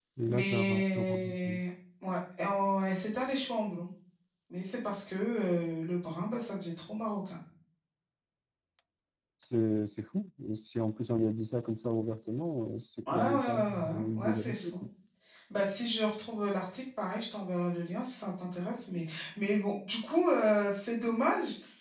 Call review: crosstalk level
present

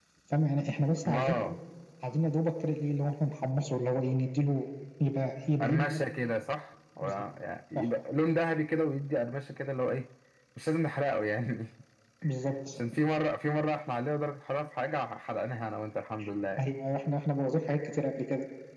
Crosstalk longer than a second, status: none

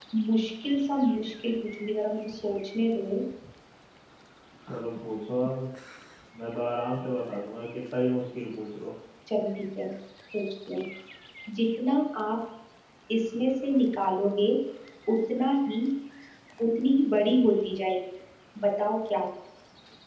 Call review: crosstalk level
none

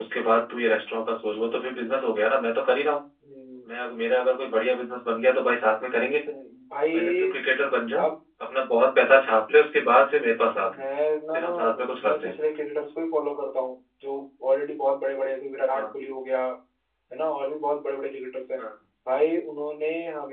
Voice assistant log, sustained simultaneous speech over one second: none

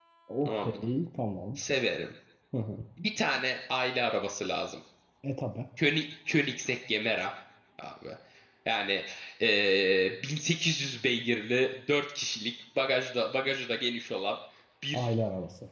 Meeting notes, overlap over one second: none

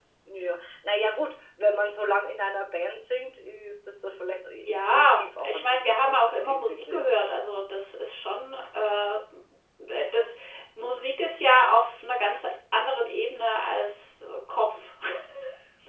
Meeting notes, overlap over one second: present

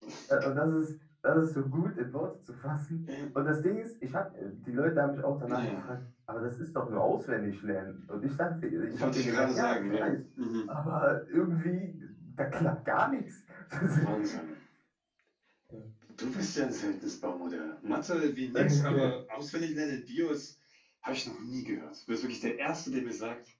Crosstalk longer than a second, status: present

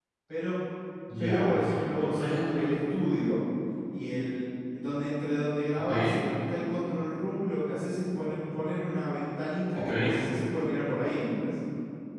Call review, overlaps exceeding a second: present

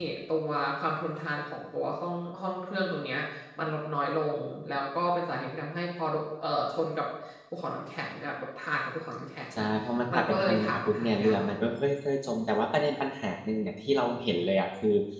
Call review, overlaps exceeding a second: present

